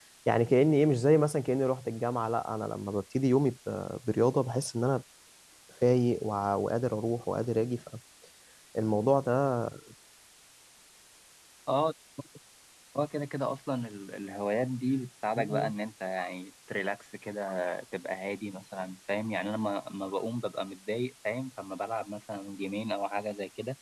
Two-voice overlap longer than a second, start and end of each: none

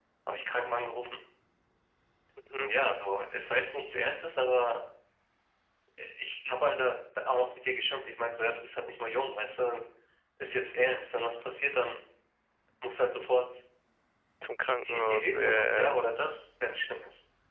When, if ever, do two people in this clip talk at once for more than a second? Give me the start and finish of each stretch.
14.8-16.0

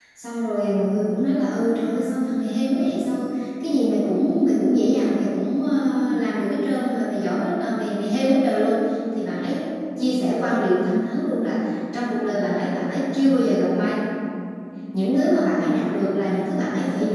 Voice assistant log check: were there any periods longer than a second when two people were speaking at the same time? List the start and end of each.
none

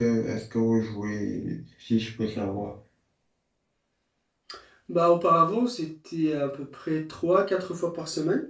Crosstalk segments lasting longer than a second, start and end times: none

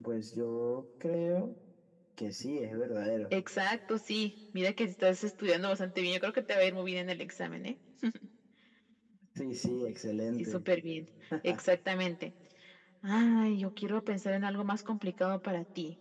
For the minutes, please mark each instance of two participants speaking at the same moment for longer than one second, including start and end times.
none

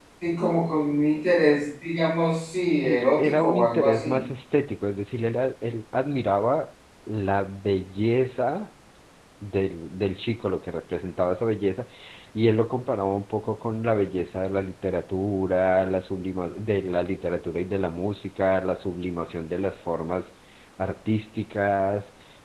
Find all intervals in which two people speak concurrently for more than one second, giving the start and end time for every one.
2.8-4.2

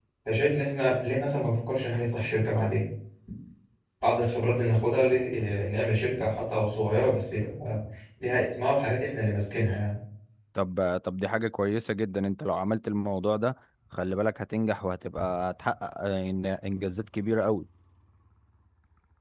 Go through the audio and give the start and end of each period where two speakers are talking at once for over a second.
none

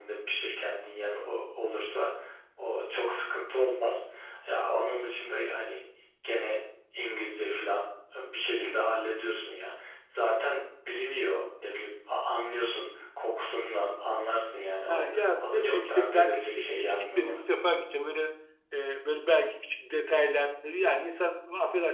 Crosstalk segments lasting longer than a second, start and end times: 14.9-17.4

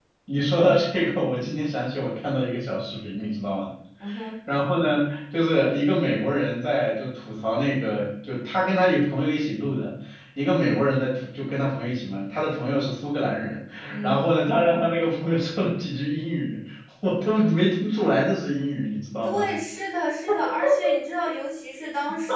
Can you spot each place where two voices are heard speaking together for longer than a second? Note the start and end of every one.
none

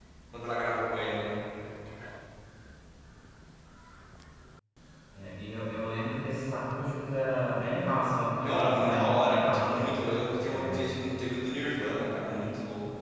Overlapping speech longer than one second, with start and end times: 8.4-9.9

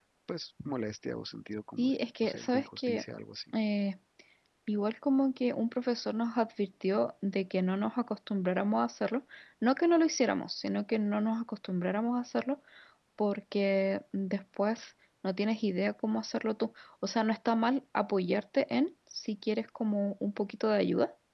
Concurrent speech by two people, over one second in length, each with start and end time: 1.8-3.0

